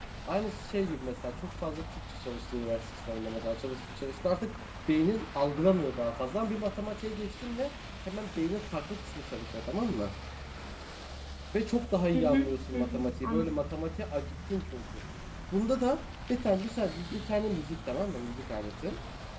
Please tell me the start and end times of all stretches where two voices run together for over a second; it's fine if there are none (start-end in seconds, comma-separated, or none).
12.1-13.4